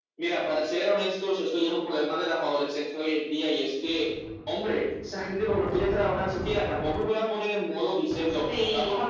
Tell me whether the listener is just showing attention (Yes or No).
Yes